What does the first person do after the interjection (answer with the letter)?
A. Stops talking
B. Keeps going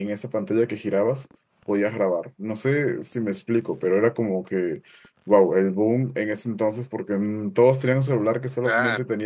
B